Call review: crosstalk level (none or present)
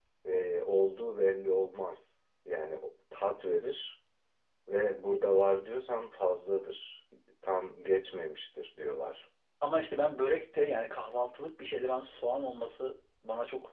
none